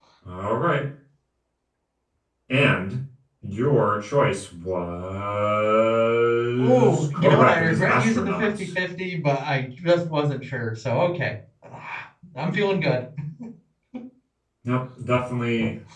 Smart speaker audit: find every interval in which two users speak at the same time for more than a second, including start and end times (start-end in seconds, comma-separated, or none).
6.6-8.7